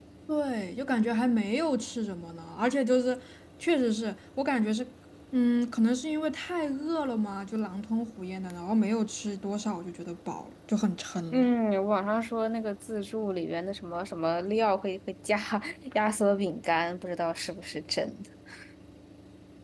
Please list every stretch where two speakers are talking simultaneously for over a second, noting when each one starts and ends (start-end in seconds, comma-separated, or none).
none